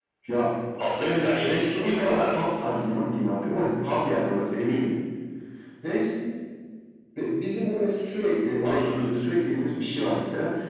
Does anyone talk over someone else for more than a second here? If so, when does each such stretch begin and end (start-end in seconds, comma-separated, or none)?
1.0-2.4